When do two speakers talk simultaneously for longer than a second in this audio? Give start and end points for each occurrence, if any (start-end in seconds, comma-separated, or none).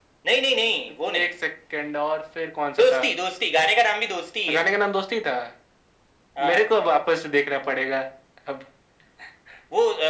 none